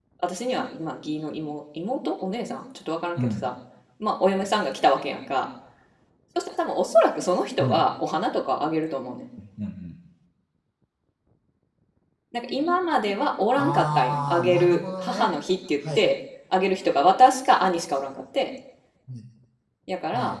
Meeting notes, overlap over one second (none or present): present